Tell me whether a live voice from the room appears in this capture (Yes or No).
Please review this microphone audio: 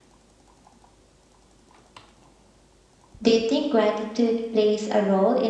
Yes